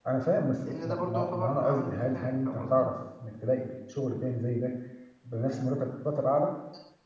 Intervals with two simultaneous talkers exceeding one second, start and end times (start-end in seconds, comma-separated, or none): 0.7-2.9